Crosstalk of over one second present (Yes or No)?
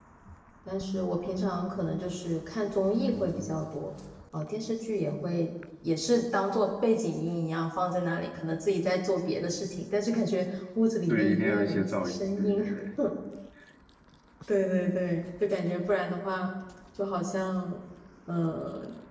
Yes